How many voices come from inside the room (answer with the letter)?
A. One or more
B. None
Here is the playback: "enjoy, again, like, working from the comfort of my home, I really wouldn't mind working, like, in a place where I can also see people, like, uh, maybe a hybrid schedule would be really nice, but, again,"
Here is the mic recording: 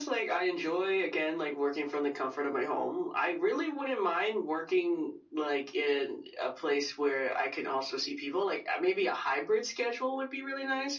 B